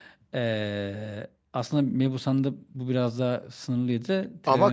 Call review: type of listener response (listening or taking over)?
taking over